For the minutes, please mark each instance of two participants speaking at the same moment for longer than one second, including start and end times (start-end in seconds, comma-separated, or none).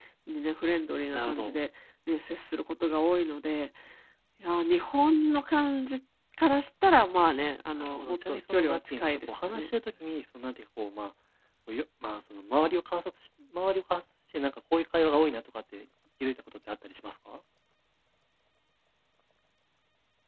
7.8-9.7